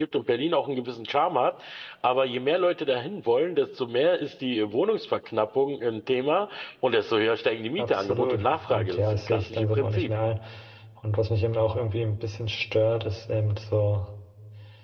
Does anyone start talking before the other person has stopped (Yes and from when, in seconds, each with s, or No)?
Yes, from 7.8 s